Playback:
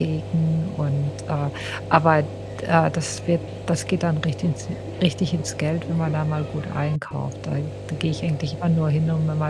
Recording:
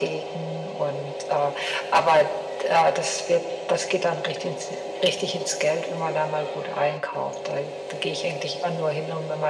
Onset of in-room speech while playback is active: none

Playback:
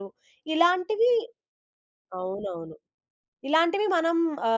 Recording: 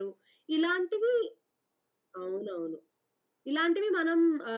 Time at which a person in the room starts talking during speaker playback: none

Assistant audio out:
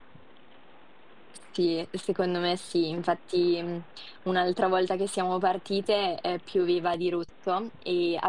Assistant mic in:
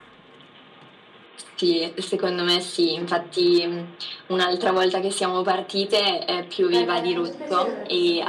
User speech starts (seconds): 6.7 s

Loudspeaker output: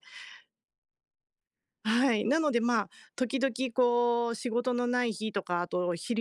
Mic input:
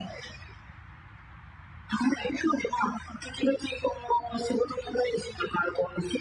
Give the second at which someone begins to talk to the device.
none

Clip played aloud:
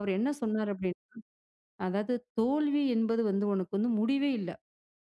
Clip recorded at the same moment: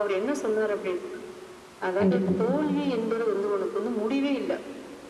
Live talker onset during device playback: 2.0 s

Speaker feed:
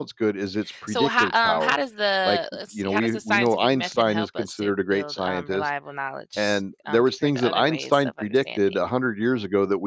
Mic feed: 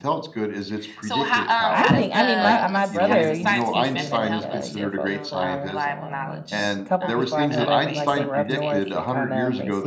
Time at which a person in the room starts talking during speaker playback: 1.7 s

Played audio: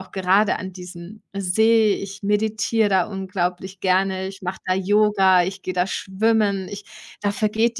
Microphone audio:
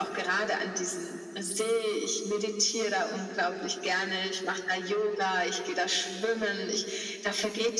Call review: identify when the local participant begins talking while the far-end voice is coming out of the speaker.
none

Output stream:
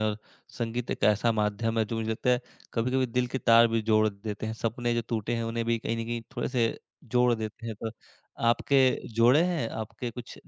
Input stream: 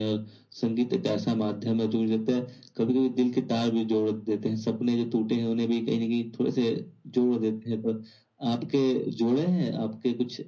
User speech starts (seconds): none

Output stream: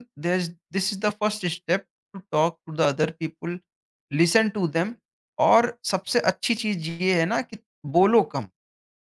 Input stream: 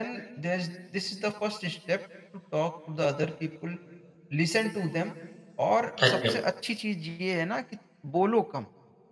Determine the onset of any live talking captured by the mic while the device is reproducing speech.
6.0 s

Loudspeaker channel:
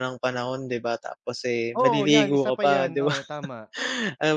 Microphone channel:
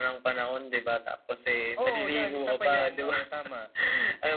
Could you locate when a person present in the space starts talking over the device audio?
none

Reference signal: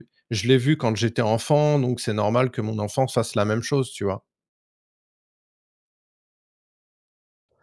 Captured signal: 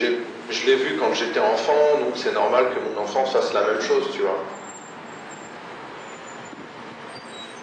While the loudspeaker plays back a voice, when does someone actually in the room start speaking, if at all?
none

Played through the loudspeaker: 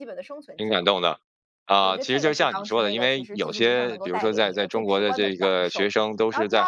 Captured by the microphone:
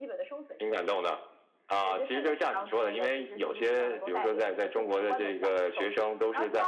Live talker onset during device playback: none

